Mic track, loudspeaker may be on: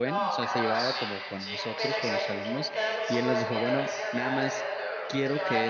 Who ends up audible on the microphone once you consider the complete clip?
both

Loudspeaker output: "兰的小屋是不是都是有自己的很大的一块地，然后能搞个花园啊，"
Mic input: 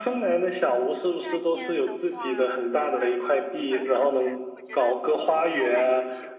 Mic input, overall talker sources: both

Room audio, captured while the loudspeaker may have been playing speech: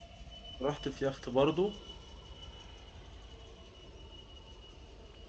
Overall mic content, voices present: user only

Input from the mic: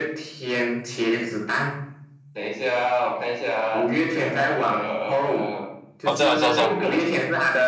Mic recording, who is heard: both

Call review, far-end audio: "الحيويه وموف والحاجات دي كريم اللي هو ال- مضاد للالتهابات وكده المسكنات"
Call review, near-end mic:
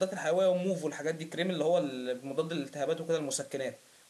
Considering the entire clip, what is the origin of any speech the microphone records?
echo only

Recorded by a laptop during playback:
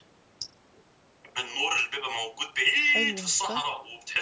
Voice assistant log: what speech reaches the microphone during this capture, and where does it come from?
both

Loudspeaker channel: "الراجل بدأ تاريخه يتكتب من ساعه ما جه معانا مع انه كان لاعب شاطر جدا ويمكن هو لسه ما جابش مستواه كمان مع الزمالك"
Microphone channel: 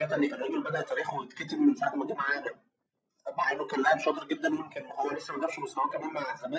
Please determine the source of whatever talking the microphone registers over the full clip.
echo only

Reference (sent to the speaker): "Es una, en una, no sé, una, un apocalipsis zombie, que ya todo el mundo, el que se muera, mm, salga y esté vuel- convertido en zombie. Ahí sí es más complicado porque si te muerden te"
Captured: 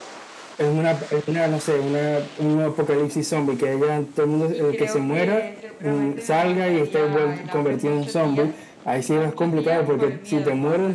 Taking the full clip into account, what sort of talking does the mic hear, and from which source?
both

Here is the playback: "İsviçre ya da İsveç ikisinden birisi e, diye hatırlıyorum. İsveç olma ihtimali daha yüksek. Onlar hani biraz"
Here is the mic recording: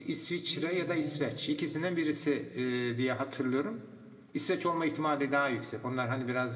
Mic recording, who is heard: both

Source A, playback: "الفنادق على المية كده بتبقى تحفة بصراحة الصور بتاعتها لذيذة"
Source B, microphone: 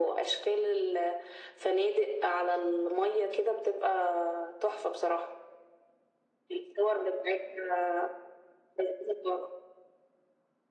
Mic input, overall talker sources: echo only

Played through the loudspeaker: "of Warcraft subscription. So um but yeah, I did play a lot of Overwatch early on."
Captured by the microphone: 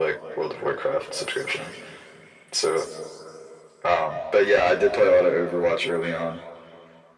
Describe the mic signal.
echo only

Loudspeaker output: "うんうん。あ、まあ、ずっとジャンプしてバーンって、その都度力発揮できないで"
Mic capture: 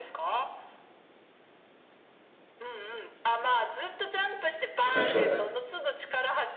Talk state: both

